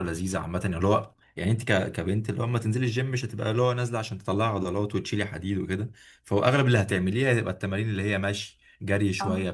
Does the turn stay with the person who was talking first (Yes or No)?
Yes